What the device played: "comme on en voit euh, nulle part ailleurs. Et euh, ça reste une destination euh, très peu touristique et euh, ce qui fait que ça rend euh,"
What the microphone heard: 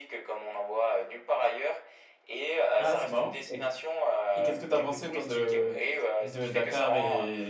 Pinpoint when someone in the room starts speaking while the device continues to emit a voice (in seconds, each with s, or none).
2.8 s